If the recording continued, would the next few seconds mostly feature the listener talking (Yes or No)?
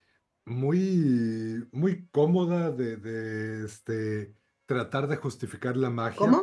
No